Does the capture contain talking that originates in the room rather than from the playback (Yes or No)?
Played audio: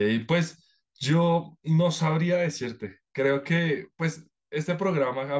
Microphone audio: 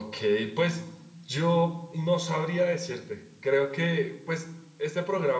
No